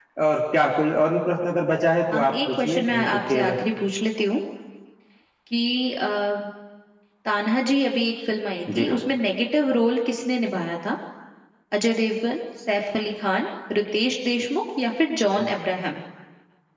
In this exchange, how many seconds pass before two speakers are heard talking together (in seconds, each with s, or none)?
2.1 s